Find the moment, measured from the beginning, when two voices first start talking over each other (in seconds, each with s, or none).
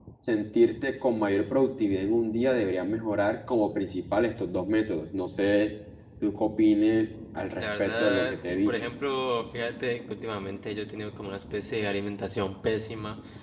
7.6 s